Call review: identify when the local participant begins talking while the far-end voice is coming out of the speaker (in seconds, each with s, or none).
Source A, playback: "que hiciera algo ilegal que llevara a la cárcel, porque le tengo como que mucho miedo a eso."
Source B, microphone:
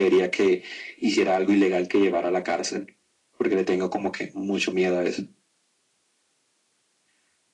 none